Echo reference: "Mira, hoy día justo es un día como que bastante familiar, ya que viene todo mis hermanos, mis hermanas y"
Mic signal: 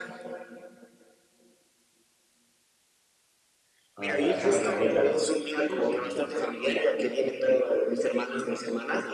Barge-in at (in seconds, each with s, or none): 4.0 s